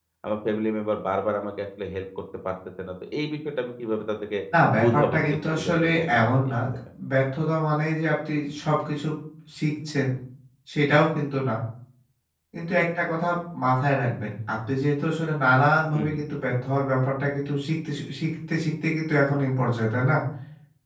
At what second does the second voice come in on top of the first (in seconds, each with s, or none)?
4.8 s